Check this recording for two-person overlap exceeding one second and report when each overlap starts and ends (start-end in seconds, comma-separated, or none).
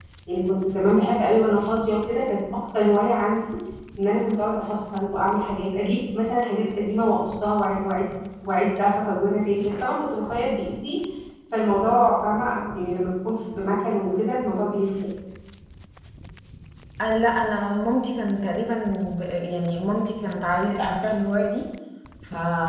none